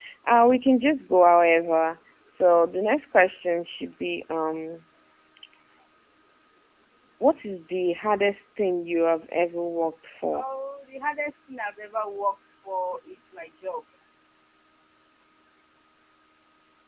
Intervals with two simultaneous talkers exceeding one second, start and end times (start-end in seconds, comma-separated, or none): none